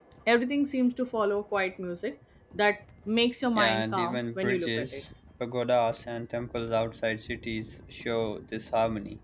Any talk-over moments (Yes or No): Yes